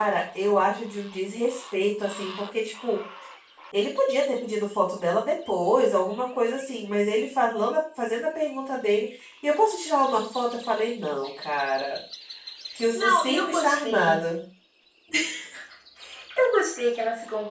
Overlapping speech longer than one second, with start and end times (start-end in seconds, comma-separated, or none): 12.9-14.2